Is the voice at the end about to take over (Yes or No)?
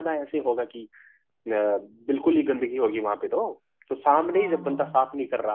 No